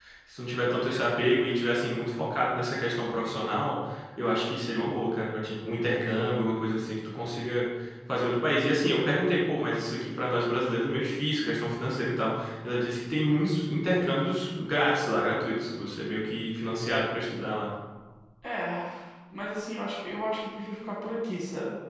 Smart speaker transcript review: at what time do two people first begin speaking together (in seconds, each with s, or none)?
none